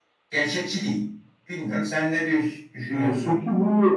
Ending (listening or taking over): taking over